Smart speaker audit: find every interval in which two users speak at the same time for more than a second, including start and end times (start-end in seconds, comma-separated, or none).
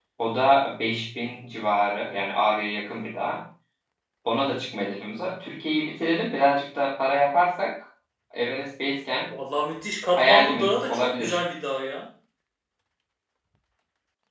10.2-11.4